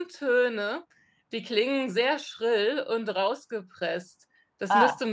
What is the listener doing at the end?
listening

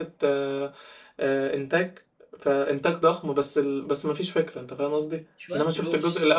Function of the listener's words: listening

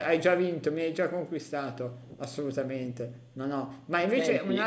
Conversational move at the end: listening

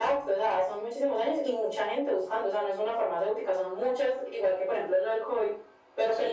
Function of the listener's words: listening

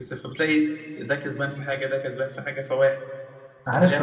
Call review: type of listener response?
taking over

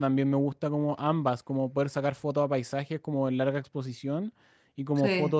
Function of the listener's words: listening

